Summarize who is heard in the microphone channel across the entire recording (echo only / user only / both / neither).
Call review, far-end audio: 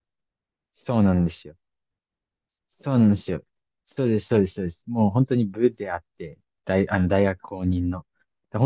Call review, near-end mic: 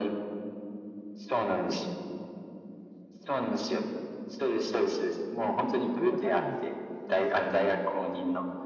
both